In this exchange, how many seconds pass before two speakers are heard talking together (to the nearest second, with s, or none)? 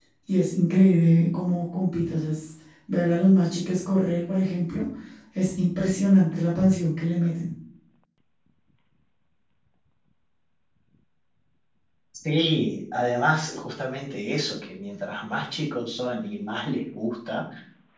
none